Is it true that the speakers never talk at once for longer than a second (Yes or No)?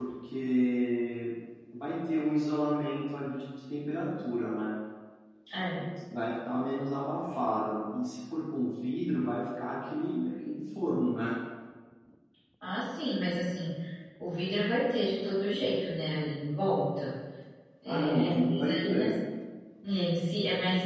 No